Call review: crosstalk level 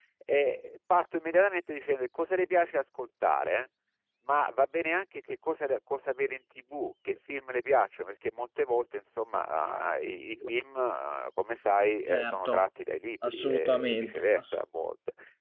present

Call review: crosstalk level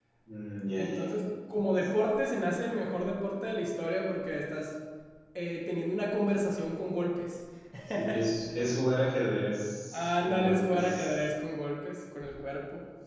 present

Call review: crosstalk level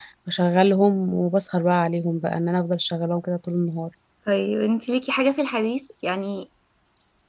none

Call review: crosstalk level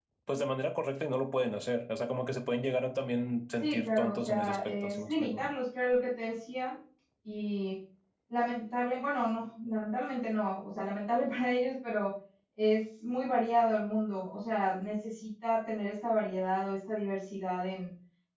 present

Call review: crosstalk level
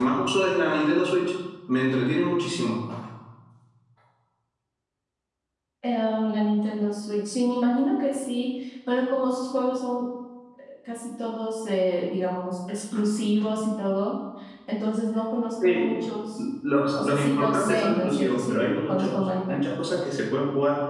present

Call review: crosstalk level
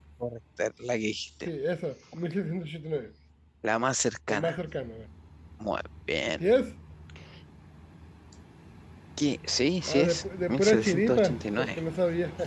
present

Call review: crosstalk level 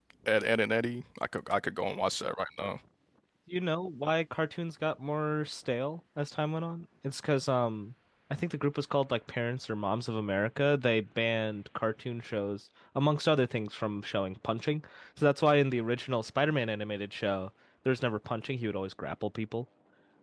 none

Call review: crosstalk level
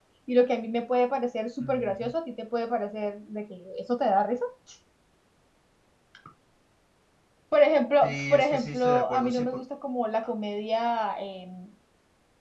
present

